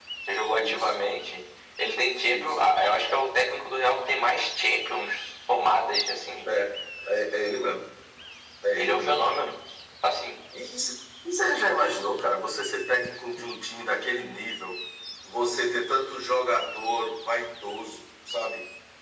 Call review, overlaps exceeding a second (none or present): none